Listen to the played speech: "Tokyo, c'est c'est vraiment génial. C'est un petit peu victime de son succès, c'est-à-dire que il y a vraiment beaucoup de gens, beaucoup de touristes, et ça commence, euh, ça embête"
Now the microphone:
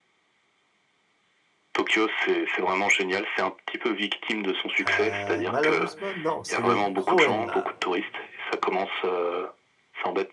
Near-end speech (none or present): present